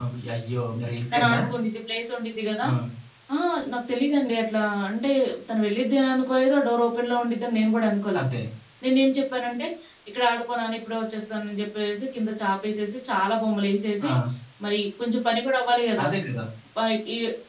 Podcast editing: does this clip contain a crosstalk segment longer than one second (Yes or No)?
No